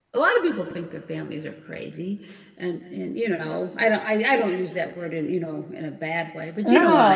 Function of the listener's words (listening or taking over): taking over